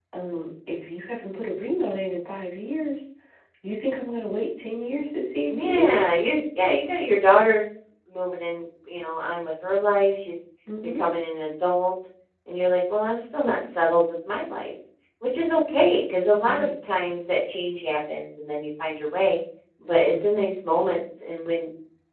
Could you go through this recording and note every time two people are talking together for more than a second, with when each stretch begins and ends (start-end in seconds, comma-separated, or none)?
none